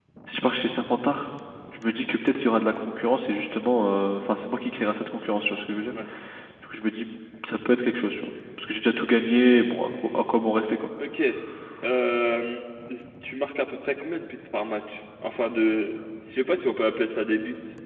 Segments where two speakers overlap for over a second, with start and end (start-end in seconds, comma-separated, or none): none